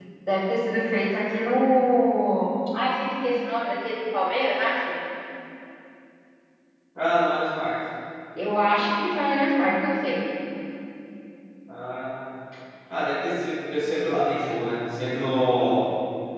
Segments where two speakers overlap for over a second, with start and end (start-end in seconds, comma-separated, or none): none